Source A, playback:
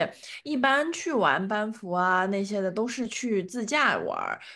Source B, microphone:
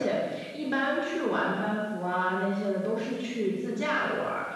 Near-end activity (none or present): none